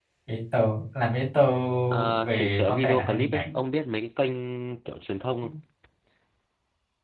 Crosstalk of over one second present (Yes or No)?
Yes